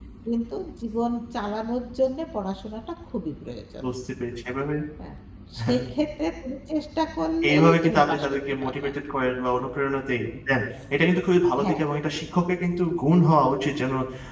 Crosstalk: present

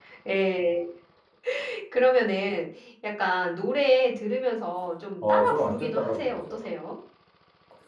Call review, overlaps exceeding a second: present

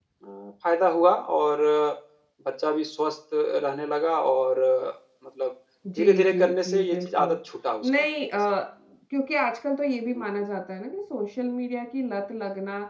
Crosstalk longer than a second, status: present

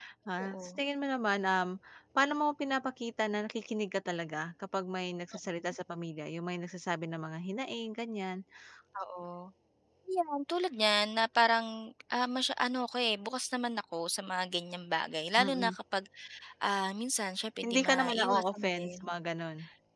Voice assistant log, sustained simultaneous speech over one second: present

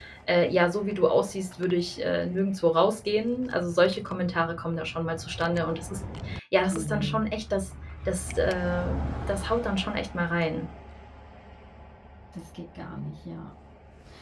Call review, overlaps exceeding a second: none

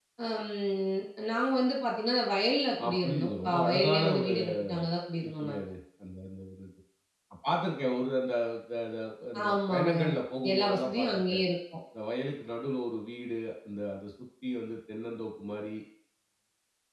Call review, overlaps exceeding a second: present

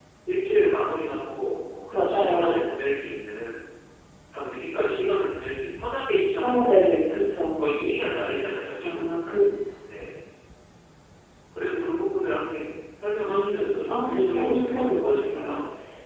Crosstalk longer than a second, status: present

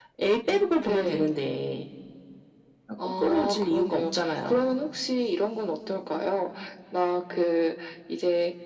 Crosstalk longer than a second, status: present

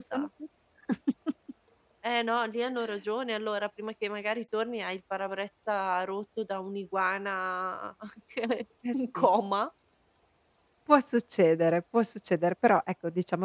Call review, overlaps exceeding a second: none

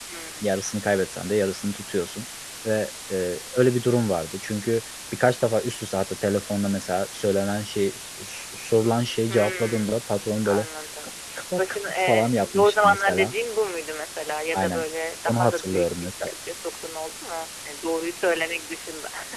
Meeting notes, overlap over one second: present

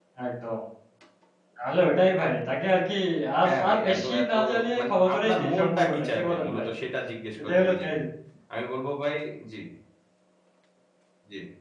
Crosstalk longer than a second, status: present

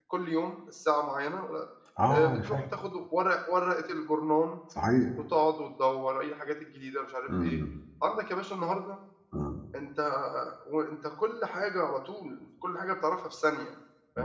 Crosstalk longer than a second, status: none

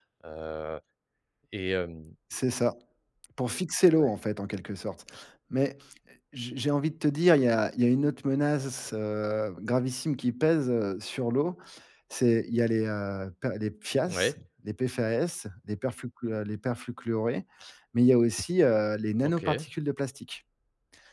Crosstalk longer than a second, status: none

